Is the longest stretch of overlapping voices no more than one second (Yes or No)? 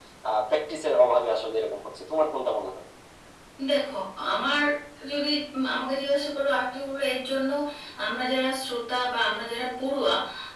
Yes